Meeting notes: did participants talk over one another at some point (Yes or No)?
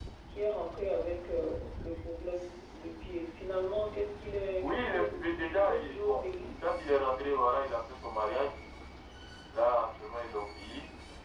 Yes